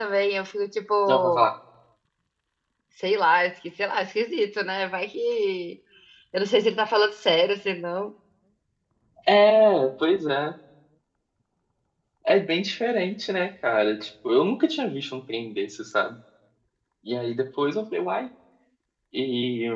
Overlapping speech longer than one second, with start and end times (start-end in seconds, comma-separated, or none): none